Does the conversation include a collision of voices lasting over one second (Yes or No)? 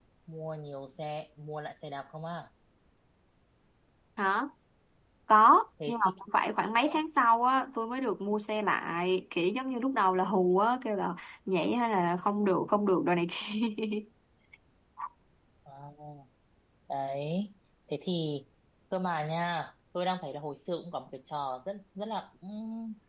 No